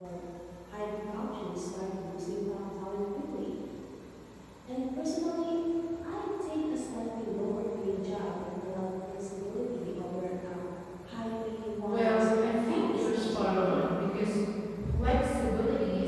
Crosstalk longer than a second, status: present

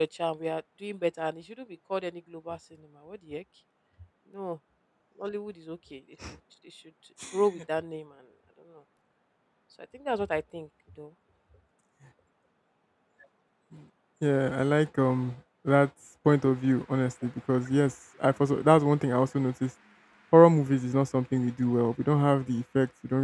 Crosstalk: none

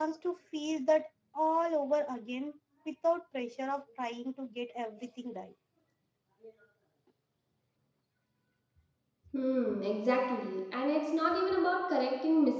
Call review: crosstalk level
none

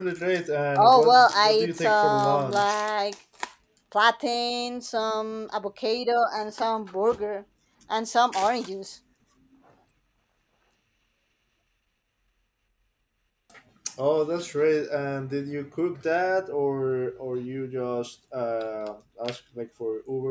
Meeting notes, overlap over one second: present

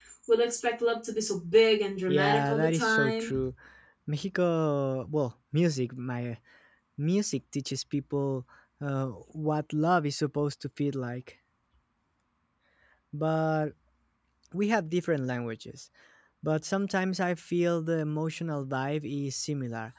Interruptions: present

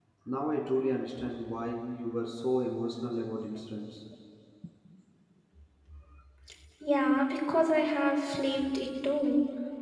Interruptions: none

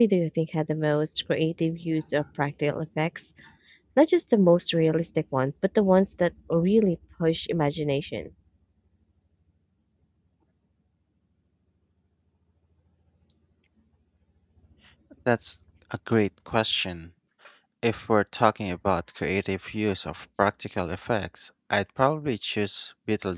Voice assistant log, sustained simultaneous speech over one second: none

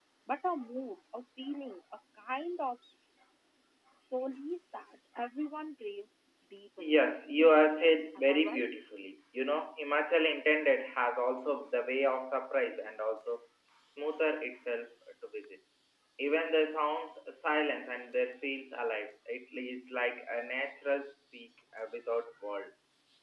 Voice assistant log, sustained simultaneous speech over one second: present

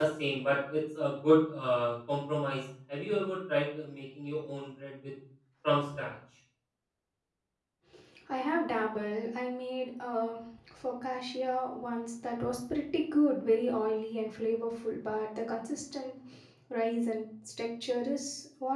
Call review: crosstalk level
none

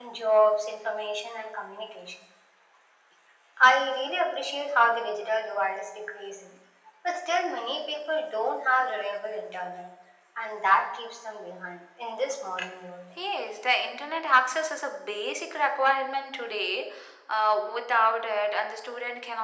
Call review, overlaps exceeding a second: none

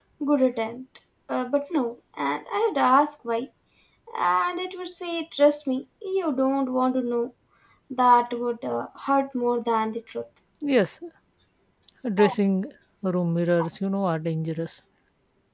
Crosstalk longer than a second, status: none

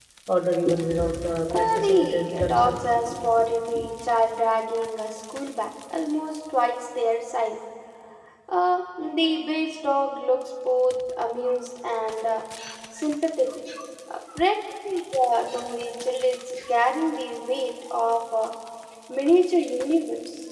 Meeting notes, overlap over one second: present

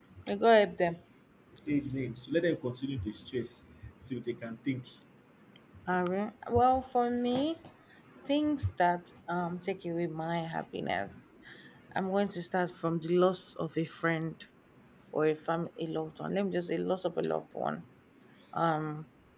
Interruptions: none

